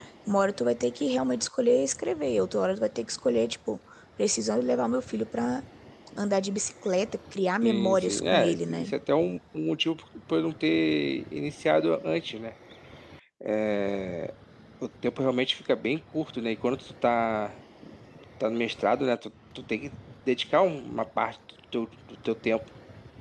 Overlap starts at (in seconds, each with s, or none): 7.6 s